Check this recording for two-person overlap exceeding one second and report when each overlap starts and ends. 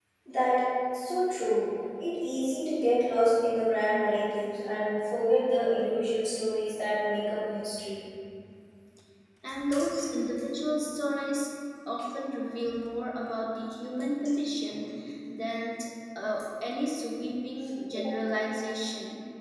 none

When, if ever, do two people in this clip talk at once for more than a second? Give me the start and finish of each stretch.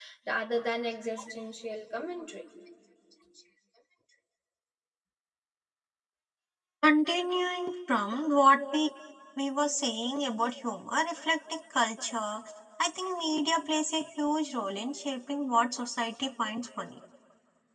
none

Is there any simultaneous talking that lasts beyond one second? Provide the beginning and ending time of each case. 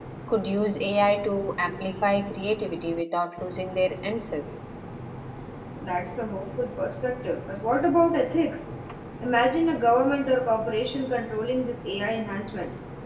none

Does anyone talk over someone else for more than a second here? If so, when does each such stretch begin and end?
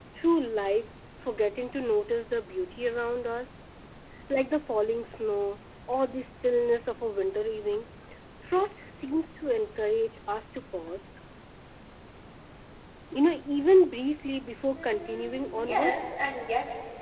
14.7-16.0

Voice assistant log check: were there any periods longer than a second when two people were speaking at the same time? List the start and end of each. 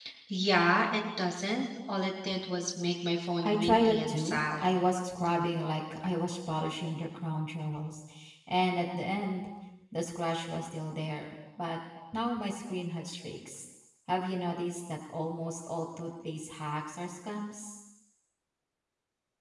3.4-4.6

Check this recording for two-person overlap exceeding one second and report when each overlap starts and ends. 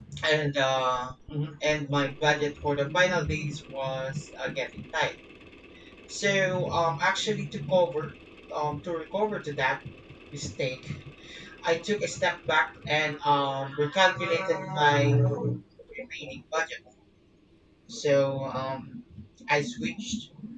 none

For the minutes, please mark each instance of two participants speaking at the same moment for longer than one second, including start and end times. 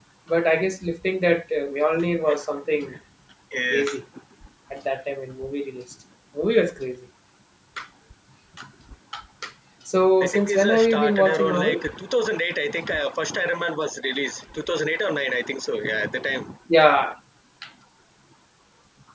10.2-11.8

